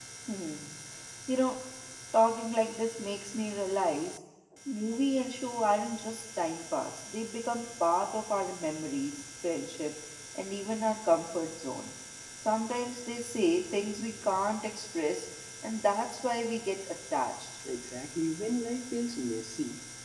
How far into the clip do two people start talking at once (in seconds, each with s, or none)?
none